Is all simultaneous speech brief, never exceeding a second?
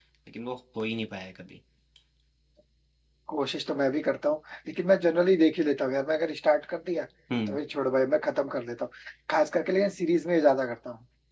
Yes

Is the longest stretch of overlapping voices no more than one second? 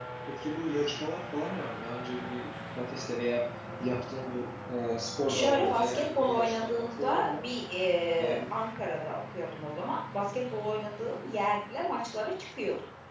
No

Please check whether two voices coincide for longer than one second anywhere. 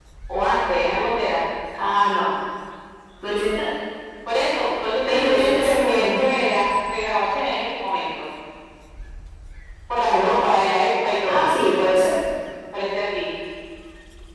Yes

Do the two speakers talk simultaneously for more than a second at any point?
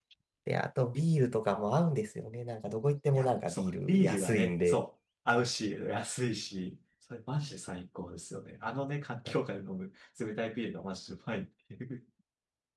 Yes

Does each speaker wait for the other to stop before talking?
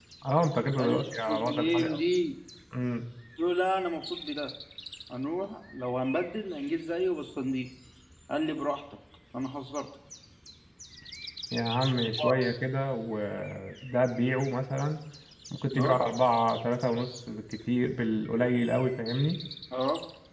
No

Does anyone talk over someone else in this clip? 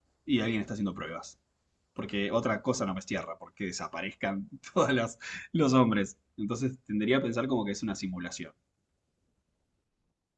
No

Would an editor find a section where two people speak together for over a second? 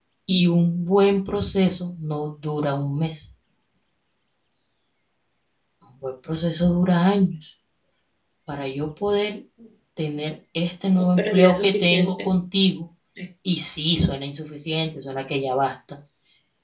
Yes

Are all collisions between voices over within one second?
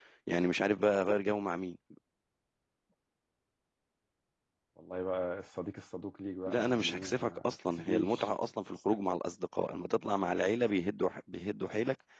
No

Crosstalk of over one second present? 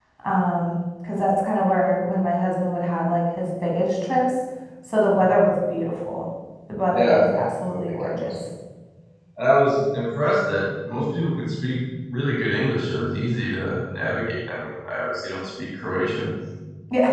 Yes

